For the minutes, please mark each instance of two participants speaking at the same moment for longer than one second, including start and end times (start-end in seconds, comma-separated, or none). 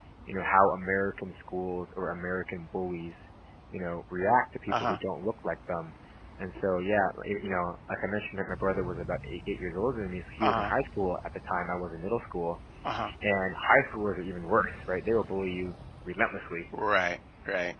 none